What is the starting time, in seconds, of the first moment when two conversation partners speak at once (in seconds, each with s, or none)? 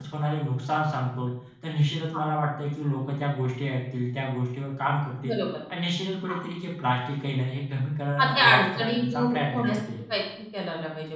8.2 s